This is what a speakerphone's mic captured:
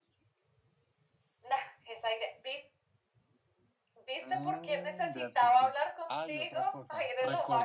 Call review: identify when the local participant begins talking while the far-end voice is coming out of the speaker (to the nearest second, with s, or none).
4 s